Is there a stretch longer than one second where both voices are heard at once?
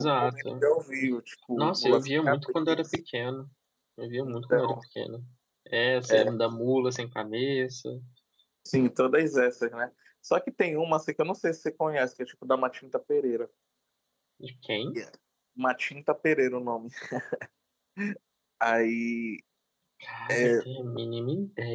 Yes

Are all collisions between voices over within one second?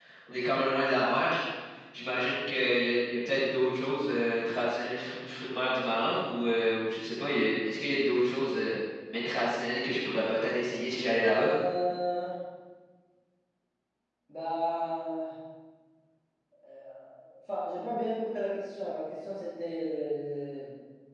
Yes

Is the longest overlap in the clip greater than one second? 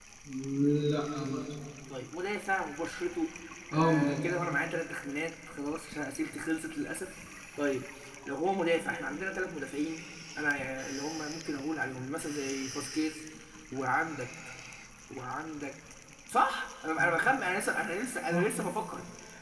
No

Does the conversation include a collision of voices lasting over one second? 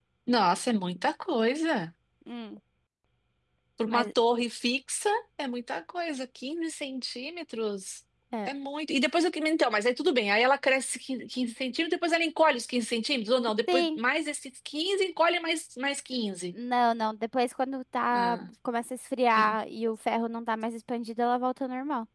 No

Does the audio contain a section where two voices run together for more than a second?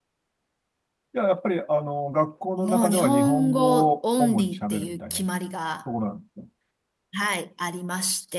Yes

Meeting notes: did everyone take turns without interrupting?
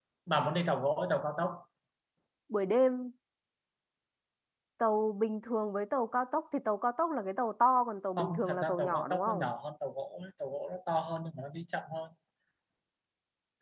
No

